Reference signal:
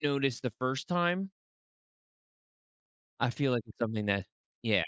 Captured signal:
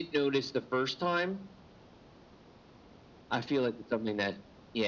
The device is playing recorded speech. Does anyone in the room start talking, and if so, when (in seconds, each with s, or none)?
none